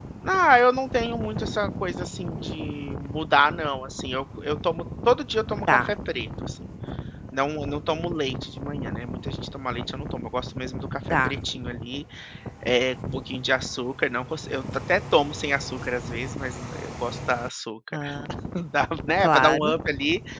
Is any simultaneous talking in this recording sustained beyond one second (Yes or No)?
No